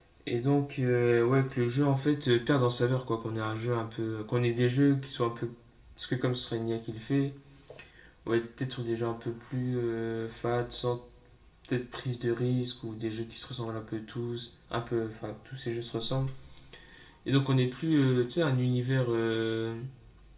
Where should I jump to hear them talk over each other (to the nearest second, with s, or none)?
none